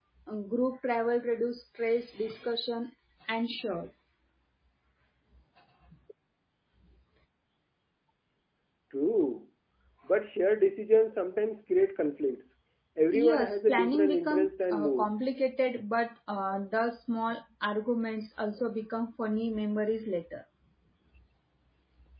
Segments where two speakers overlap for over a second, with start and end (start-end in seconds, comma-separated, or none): 13.1-15.1